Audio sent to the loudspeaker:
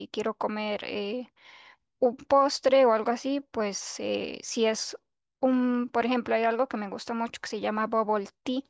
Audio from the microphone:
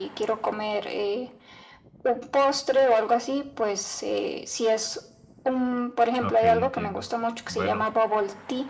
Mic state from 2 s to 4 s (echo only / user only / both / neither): echo only